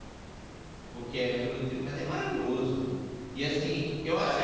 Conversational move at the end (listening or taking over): taking over